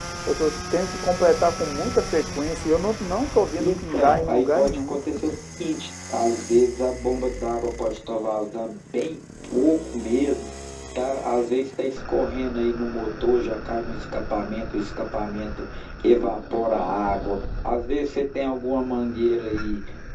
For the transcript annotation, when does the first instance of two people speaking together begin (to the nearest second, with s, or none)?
4 s